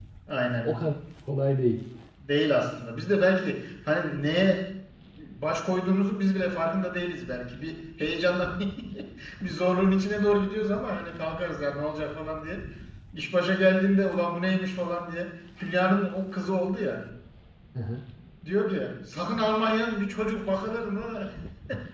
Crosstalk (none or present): none